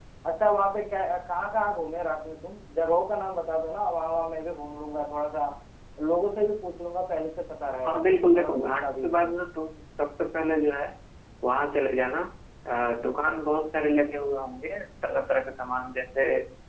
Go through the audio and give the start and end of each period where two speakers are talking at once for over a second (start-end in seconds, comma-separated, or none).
7.8-9.3